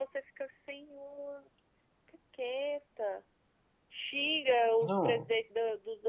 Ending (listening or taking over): listening